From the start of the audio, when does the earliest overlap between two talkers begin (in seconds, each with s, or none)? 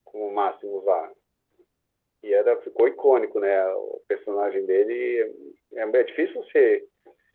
none